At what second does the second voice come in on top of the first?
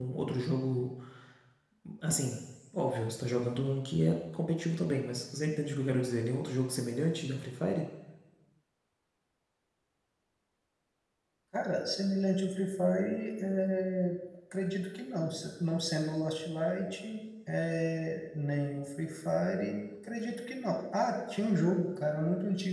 none

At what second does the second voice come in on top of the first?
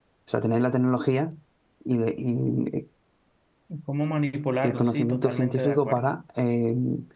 4.6 s

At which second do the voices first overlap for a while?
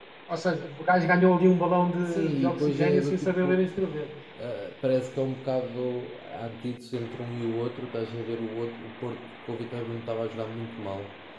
2.0 s

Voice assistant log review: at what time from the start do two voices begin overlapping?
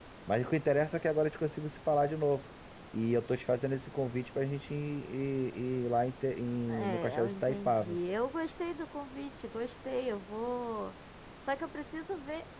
6.7 s

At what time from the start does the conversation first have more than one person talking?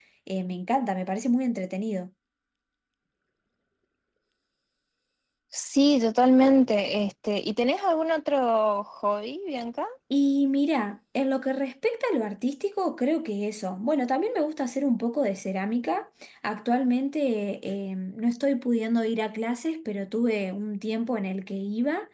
none

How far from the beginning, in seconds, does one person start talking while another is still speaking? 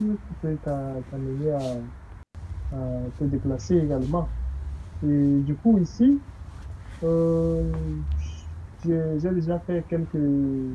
none

